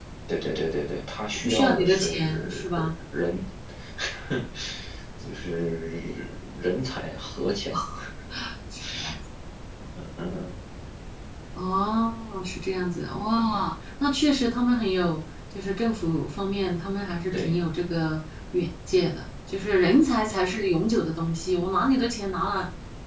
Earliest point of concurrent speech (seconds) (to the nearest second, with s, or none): 1 s